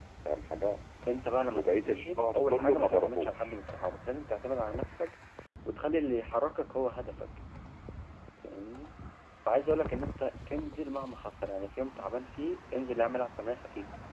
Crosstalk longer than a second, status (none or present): present